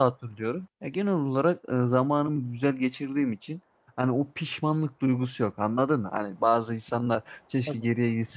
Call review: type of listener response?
listening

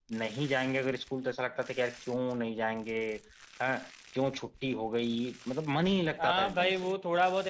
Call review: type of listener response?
taking over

